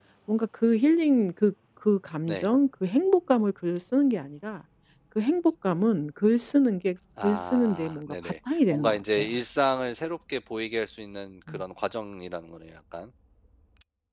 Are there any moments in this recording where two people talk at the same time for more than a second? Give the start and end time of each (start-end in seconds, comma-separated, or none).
7.2-9.3